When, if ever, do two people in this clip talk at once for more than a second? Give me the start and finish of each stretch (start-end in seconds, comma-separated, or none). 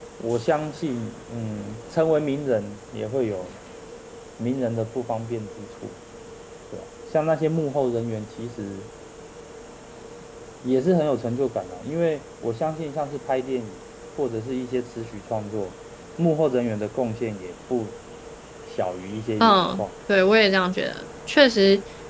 none